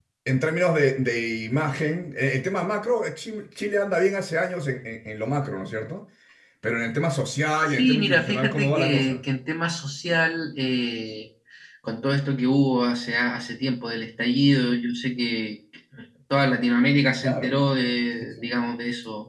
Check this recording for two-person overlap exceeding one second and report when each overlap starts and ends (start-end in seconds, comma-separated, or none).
7.7-9.2